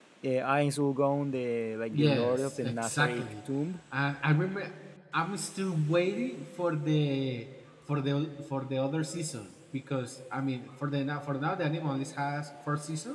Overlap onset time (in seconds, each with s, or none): 1.9 s